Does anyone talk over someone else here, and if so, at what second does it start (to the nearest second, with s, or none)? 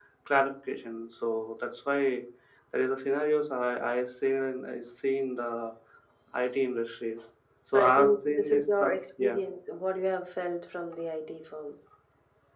8 s